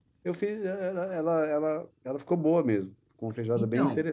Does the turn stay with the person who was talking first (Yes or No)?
No